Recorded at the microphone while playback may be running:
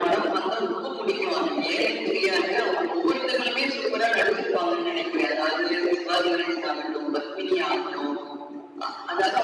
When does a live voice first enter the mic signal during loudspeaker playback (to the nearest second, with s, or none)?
none